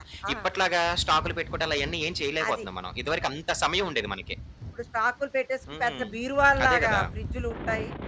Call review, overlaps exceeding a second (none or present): none